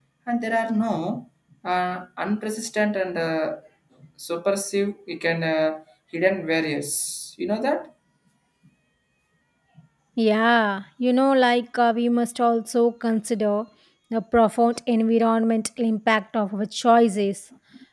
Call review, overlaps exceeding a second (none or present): none